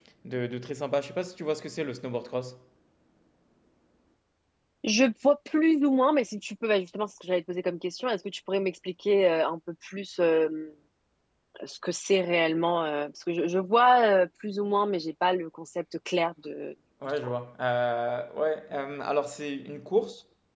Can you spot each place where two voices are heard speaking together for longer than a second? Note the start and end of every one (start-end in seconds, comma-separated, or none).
none